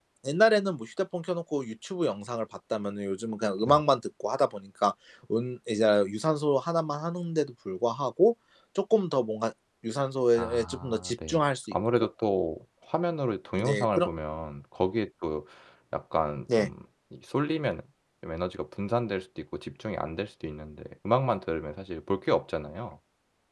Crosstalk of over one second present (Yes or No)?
Yes